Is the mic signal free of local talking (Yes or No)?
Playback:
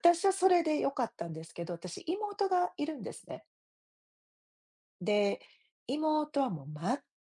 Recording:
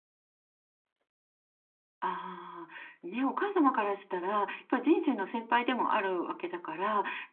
No